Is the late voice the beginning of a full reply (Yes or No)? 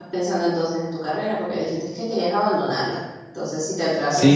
Yes